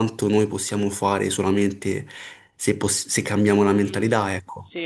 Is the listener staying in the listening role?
No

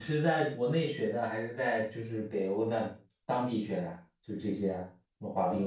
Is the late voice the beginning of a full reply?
Yes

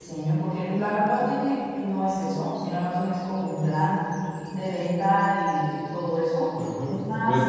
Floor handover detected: Yes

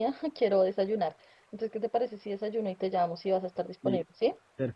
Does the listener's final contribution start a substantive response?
Yes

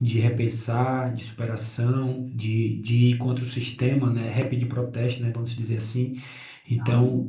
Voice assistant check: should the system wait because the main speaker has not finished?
Yes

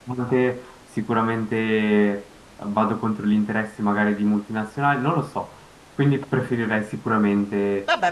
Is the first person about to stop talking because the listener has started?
Yes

